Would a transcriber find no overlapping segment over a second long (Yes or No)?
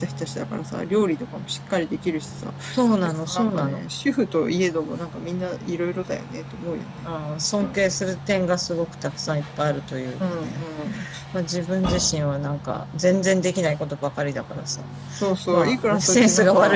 No